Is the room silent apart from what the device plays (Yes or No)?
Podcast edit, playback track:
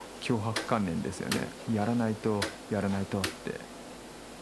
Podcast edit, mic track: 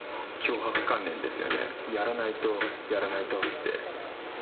No